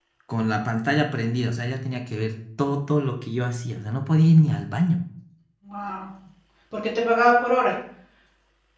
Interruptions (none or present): none